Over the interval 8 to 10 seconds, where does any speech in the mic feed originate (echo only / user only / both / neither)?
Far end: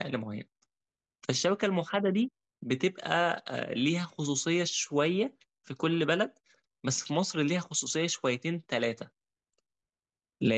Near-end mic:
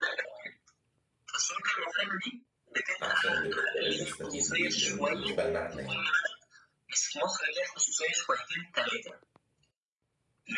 echo only